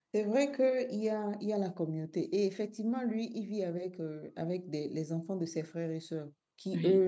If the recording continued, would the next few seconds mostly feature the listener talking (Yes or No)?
No